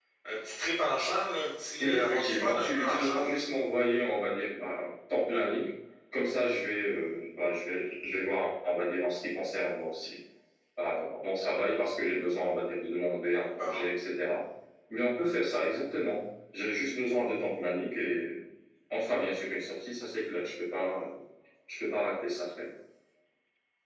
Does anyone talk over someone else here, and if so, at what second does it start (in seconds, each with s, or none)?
1.8 s